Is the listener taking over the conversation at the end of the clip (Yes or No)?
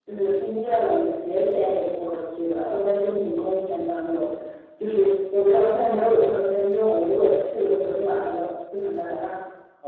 Yes